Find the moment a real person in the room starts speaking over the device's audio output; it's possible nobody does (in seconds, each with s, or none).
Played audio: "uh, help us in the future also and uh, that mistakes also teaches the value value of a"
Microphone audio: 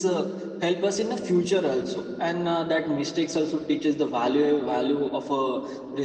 none